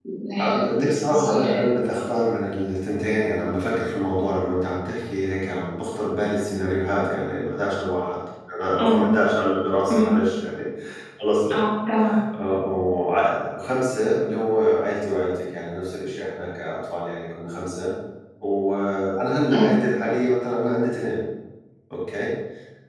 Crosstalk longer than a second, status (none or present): present